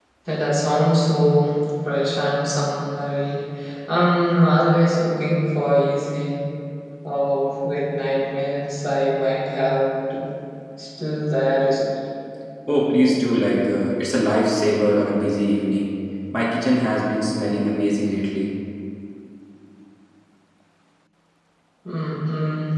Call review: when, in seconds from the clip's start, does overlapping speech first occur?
none

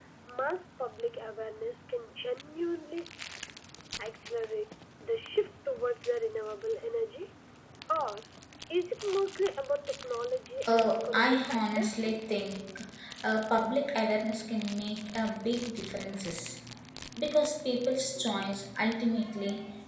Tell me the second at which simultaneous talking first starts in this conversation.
10.7 s

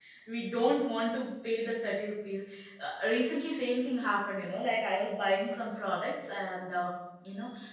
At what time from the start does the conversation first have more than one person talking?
none

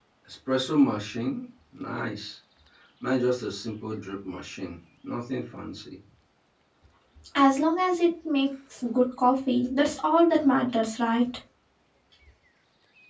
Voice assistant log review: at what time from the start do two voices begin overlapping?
none

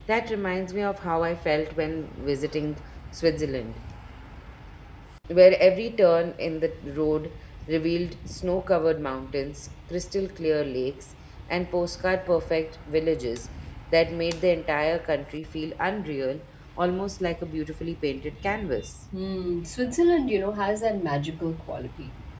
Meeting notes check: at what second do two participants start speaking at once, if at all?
none

